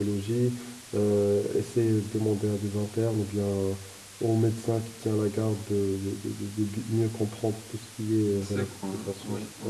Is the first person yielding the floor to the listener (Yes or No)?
Yes